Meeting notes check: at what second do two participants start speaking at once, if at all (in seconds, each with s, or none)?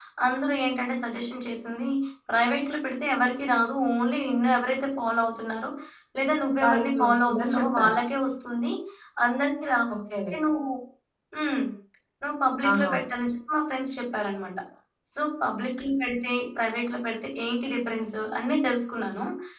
6.6 s